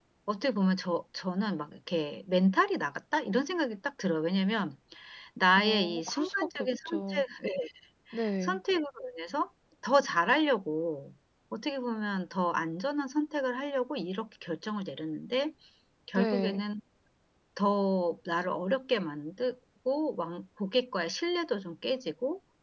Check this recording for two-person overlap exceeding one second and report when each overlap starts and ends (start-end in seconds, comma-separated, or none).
5.6-7.2